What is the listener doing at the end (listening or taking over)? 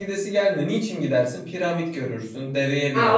taking over